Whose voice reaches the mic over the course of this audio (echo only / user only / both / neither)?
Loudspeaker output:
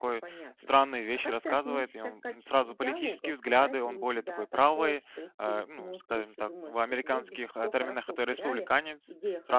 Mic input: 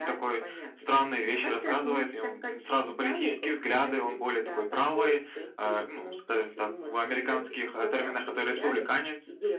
echo only